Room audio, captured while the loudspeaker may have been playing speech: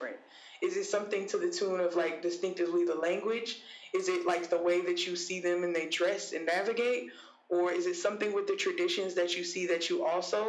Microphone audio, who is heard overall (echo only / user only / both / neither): echo only